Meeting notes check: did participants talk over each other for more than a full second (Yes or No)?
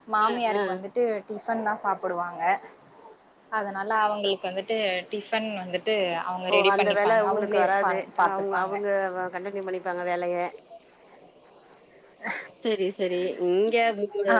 Yes